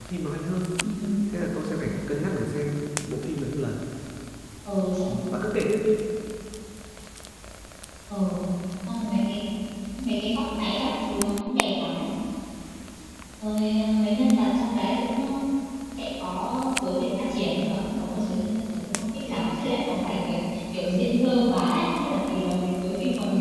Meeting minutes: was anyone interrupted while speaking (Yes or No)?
No